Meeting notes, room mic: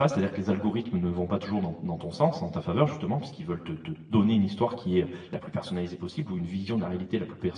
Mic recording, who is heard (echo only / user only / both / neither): user only